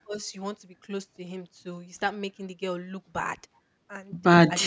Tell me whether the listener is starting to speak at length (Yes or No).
No